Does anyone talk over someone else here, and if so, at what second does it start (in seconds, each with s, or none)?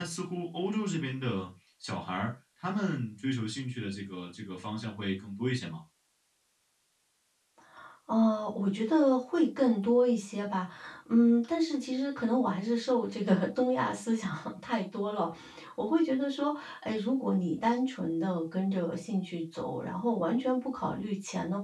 none